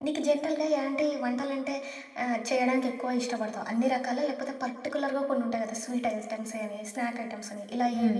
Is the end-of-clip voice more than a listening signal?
Yes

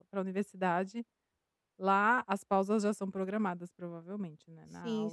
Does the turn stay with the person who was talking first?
No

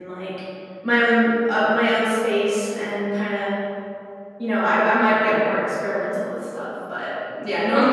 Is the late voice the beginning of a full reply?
No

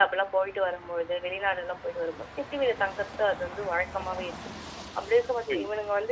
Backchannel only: Yes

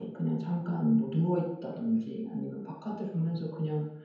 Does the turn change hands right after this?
No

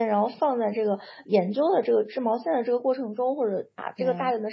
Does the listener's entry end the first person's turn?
No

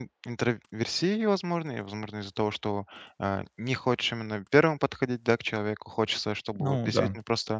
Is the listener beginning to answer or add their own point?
No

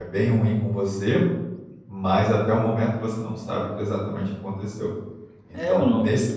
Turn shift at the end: Yes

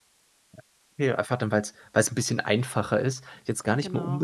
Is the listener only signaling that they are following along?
Yes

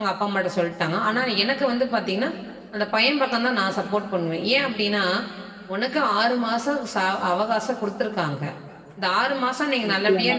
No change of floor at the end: Yes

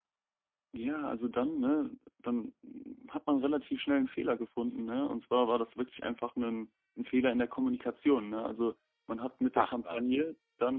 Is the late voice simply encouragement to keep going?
Yes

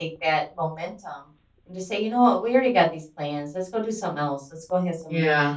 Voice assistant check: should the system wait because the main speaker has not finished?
Yes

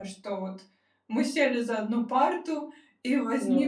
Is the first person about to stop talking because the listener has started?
No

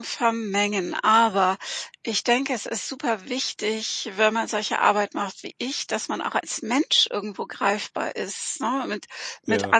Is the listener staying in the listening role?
Yes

